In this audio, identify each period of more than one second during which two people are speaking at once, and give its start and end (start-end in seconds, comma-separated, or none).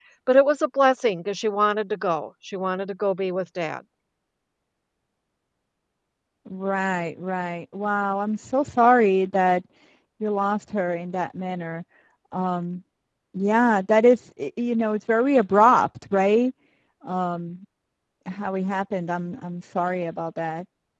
none